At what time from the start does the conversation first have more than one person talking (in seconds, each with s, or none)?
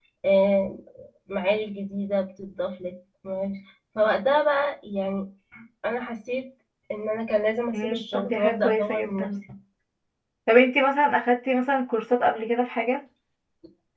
7.7 s